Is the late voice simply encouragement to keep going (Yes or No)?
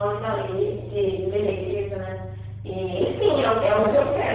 Yes